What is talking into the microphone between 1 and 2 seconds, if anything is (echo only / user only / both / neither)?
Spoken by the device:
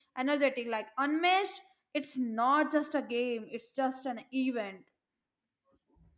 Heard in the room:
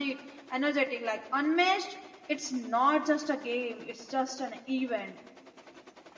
echo only